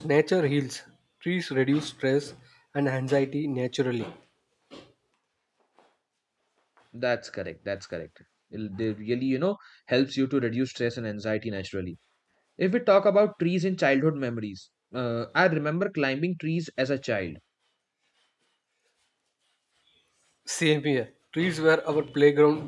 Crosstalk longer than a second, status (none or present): none